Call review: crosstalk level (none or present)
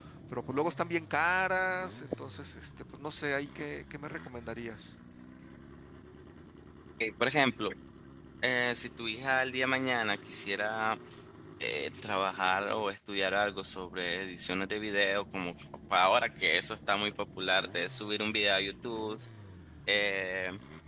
none